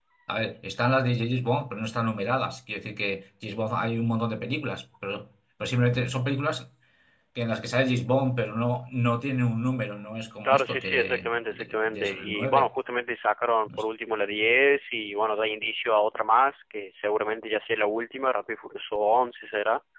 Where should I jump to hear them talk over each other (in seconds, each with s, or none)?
10.4 s